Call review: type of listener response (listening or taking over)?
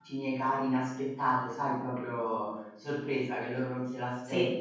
listening